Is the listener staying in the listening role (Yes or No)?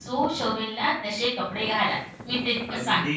No